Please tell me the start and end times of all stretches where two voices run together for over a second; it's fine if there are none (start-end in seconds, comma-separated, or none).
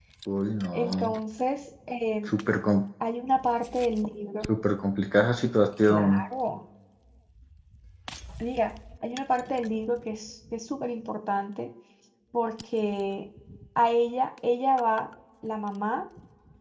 none